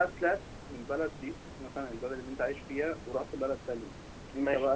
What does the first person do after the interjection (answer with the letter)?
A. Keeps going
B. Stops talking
B